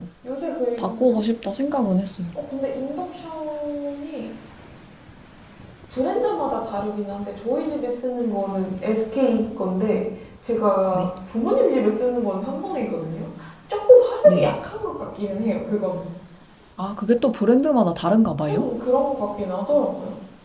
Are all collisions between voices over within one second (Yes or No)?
Yes